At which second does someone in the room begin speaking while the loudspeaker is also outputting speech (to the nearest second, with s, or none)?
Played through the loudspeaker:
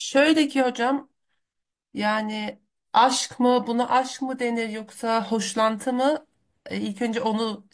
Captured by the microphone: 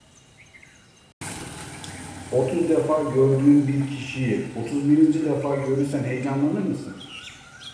2 s